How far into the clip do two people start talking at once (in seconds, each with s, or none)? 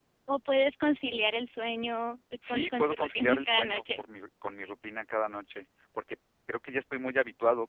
2.4 s